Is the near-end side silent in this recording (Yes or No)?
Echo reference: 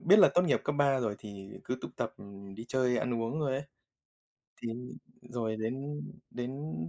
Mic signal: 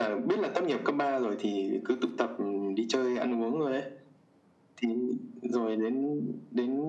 Yes